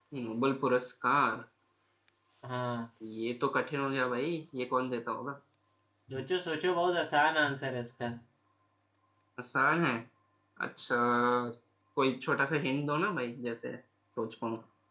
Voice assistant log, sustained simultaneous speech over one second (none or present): none